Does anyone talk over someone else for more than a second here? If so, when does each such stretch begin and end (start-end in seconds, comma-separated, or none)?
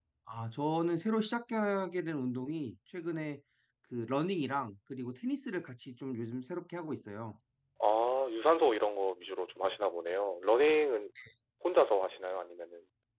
none